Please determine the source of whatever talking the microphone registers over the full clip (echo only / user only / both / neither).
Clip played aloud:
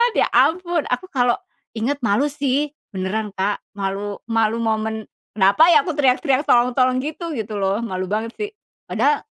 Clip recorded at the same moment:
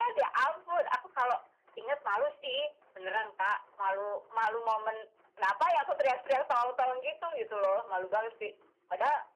echo only